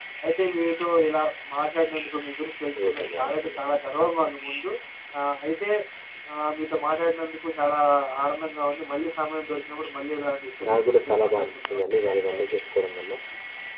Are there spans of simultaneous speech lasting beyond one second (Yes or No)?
Yes